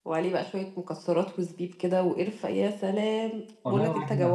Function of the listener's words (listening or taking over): taking over